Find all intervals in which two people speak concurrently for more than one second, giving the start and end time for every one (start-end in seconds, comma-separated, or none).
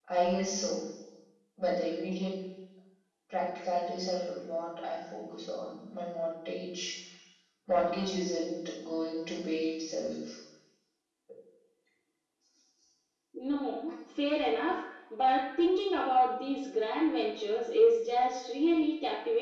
none